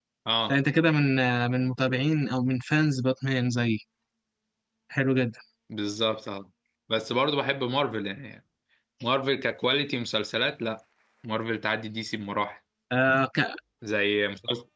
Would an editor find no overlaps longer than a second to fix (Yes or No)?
Yes